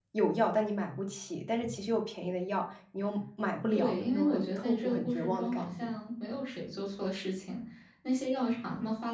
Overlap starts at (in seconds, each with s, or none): 3.7 s